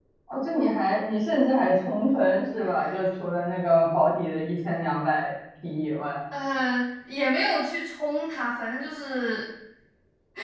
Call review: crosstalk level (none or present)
none